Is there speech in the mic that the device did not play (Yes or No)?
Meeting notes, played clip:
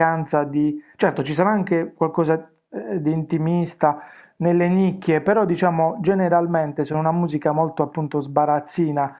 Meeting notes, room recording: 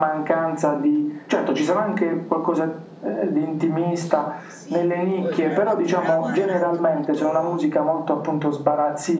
Yes